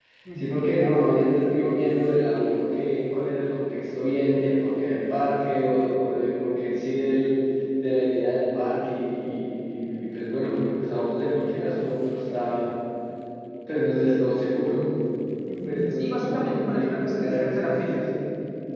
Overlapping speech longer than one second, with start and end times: 15.7-18.1

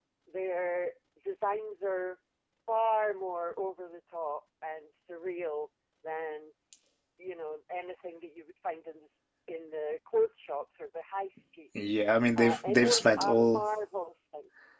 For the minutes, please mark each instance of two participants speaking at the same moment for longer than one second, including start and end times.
12.4-13.6

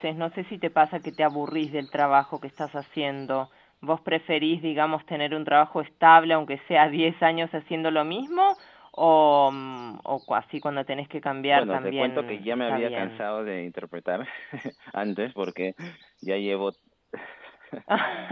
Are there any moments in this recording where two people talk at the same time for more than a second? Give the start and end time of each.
11.5-13.2

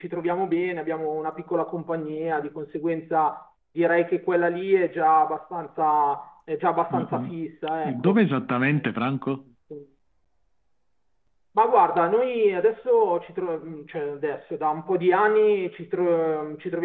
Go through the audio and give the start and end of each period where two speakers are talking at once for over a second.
none

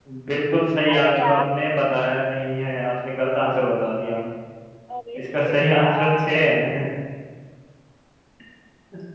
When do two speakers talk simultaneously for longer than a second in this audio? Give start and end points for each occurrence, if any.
5.2-6.4

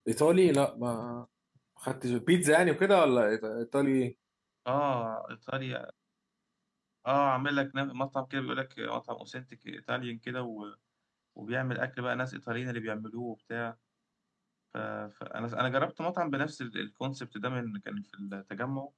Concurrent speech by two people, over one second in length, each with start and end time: none

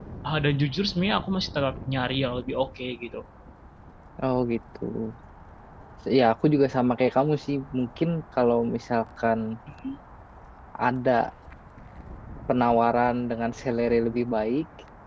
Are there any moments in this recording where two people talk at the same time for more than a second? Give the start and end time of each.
none

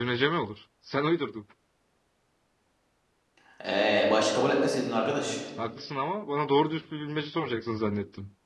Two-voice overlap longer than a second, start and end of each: none

